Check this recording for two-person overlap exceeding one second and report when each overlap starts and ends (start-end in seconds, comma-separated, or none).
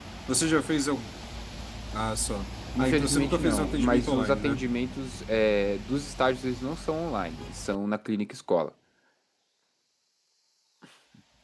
2.8-4.6